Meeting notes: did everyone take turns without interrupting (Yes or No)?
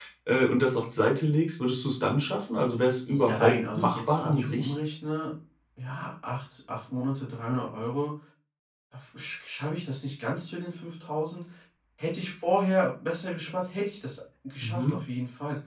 No